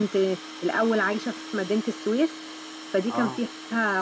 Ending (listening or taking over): listening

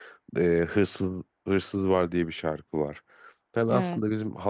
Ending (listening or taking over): listening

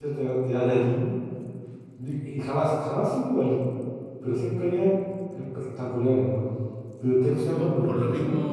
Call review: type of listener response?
taking over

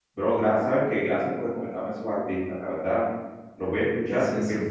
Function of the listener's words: listening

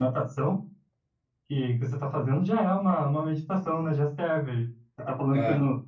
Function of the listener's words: listening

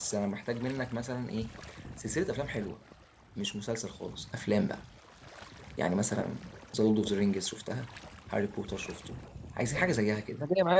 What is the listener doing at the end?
taking over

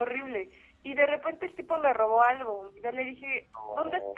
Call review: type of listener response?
listening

